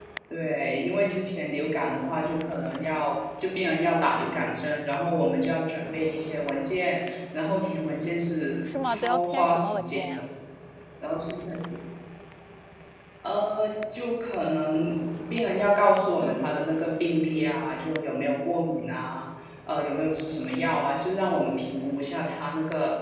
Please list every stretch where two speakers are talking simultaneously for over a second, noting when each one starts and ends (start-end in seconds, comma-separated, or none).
8.7-10.2